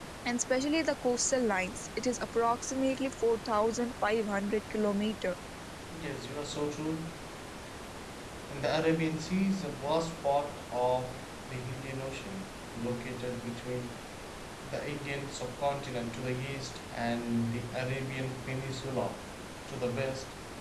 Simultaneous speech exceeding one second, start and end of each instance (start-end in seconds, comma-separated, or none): none